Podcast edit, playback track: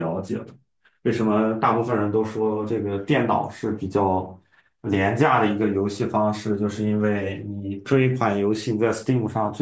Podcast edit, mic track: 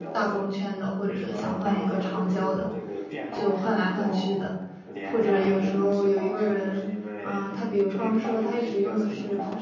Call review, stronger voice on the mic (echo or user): user